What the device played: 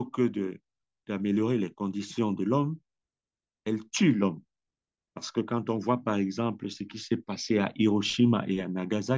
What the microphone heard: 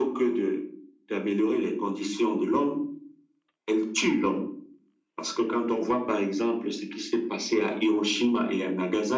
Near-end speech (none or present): none